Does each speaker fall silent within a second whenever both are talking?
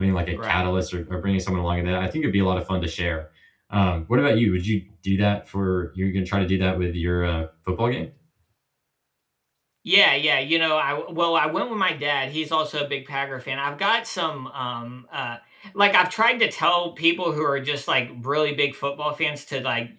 Yes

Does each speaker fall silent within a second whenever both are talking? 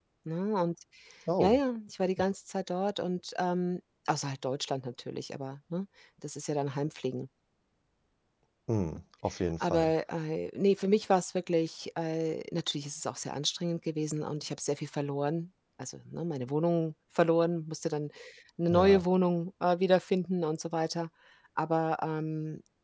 Yes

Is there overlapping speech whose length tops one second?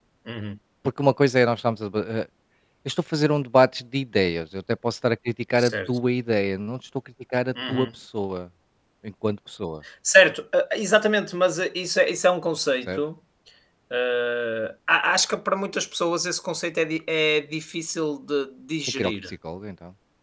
No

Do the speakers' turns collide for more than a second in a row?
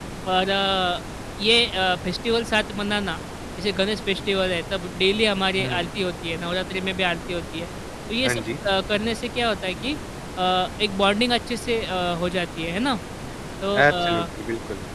No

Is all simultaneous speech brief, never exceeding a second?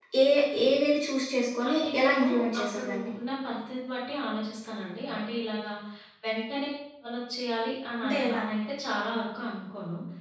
No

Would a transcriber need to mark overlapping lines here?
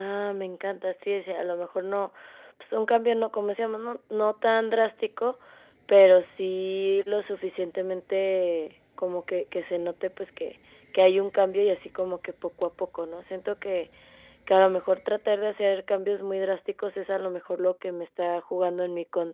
No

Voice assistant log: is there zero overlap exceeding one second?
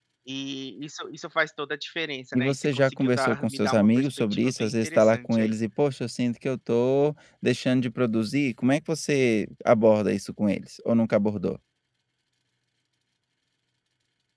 No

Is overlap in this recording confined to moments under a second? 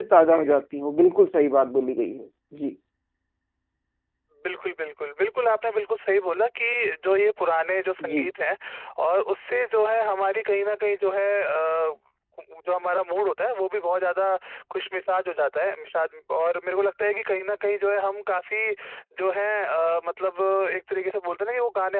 Yes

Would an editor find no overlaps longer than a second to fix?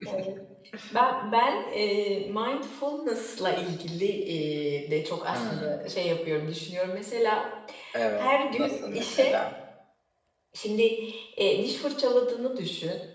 No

